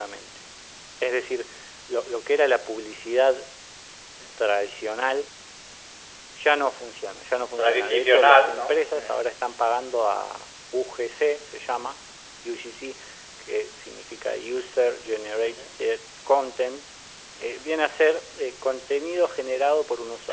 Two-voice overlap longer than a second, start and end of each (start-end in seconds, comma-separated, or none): 7.6-9.2